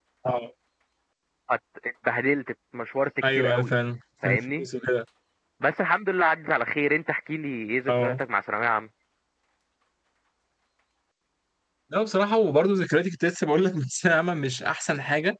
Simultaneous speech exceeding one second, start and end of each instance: none

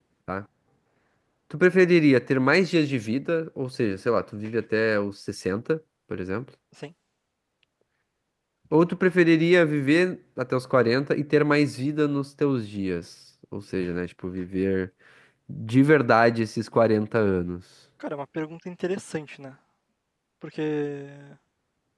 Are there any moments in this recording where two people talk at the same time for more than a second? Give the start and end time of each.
none

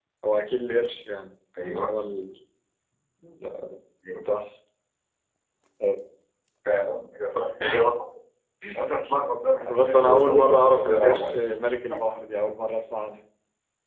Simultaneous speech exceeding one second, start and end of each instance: 9.8-11.4

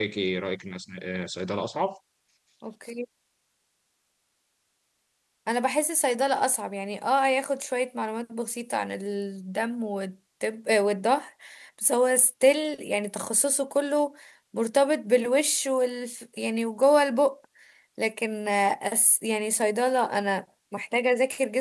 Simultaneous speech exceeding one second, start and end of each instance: none

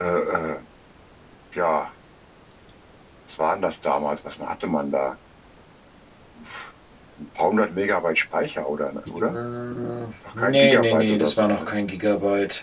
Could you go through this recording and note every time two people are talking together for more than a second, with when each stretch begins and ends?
10.3-11.7

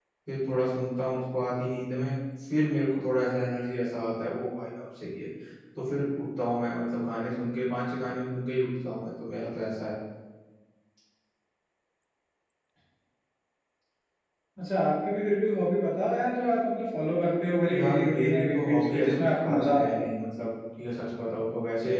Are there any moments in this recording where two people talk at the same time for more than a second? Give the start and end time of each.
17.7-20.0

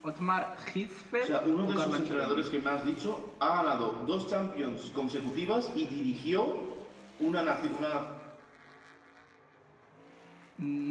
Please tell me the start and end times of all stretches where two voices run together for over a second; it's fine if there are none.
1.2-2.5

